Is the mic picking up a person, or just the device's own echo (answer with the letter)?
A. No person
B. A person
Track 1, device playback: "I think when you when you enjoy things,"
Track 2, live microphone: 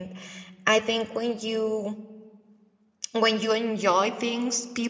A